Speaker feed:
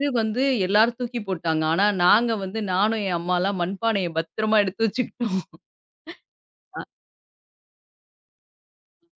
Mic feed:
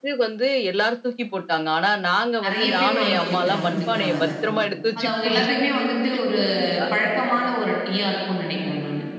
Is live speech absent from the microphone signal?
No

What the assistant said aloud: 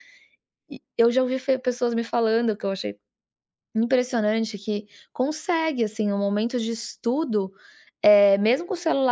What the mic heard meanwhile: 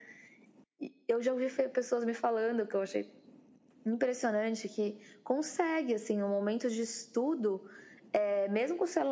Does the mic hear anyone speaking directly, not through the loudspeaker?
No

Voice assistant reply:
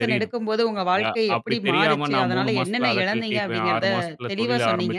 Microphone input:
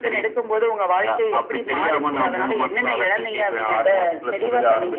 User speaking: No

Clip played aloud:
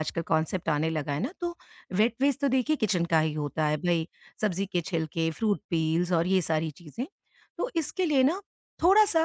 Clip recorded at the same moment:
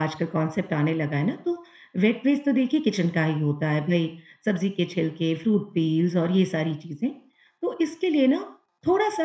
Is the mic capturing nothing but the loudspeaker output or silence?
Yes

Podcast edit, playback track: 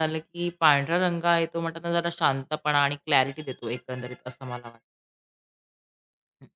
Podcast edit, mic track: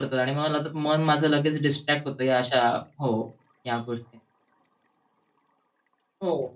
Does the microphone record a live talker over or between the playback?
Yes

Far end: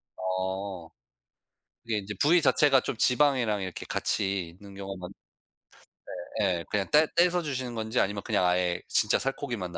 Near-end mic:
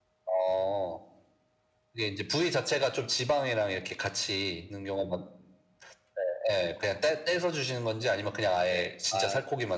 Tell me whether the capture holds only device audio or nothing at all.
No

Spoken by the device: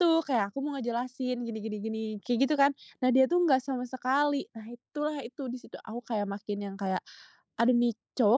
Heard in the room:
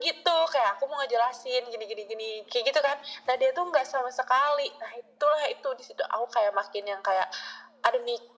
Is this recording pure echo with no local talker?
Yes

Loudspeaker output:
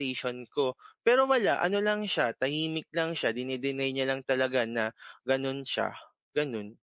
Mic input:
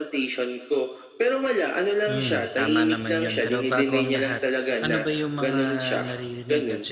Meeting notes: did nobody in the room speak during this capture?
No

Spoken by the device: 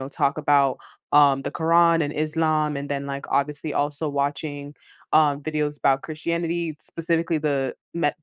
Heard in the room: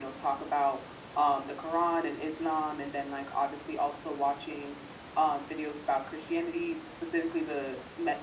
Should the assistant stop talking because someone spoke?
No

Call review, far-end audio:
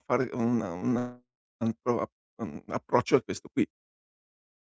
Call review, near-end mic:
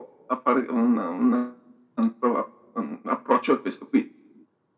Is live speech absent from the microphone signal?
Yes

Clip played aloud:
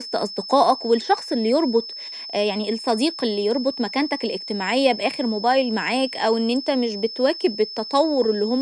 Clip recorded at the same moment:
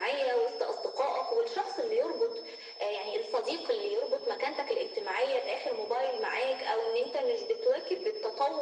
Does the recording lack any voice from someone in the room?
Yes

